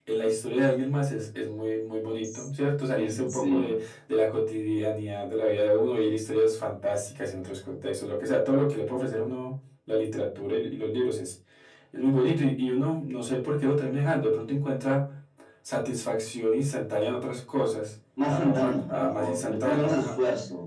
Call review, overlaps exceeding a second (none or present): present